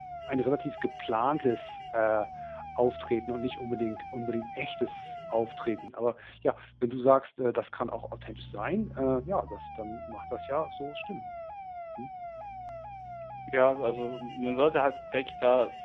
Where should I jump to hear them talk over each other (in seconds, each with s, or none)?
none